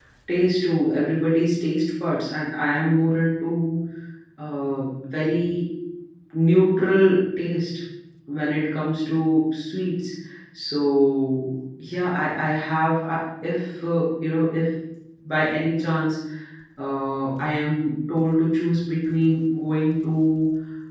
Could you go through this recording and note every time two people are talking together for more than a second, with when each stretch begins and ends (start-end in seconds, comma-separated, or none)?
none